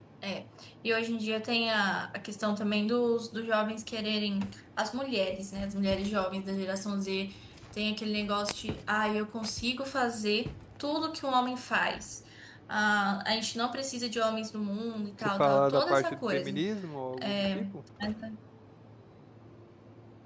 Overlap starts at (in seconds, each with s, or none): 15.2 s